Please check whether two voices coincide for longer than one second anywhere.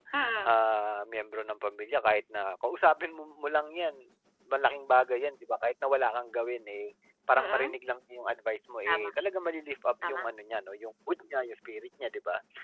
No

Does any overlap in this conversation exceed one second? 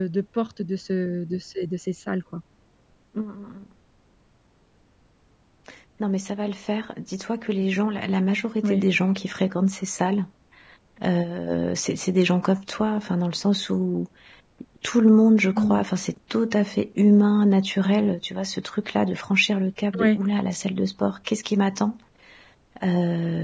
No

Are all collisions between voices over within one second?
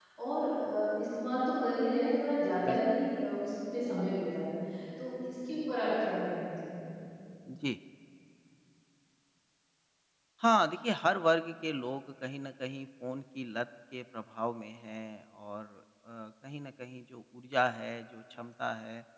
Yes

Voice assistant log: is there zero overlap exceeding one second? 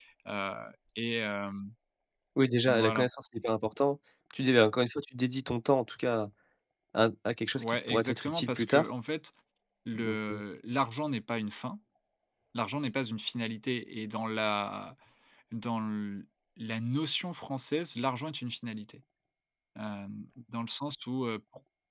No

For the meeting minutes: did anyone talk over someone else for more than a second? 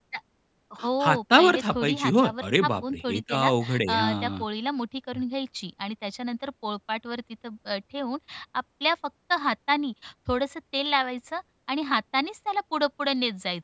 Yes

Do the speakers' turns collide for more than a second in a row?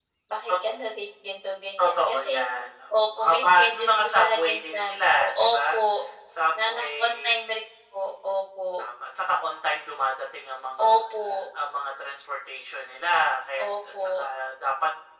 Yes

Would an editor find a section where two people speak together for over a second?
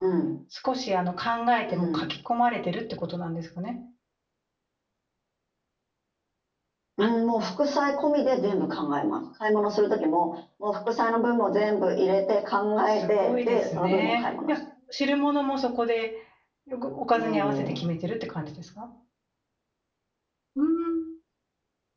Yes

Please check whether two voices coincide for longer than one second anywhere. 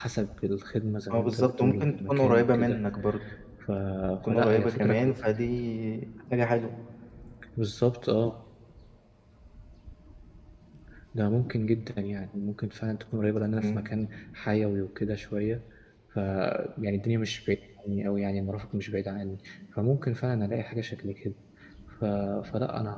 Yes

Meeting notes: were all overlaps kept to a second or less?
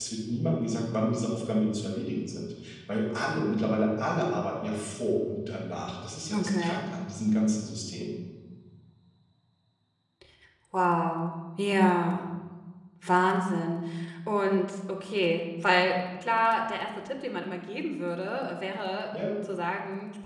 Yes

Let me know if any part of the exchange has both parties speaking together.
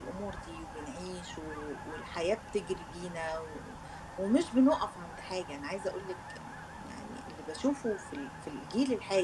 No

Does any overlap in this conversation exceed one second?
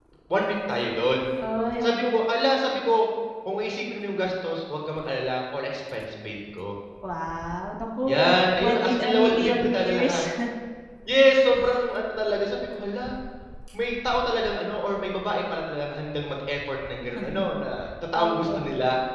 Yes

